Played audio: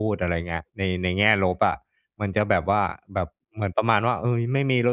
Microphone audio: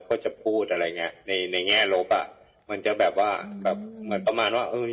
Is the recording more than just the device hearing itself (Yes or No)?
Yes